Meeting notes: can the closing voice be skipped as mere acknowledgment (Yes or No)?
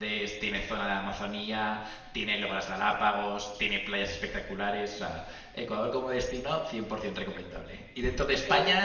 Yes